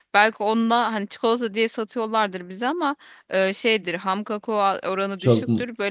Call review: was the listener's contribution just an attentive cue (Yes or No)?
Yes